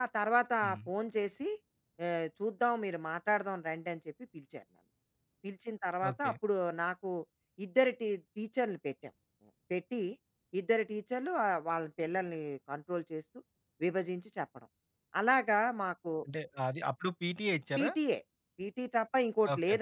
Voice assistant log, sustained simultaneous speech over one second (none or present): none